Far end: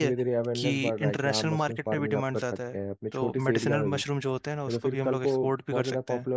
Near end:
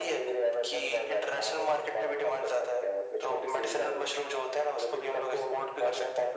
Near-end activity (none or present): none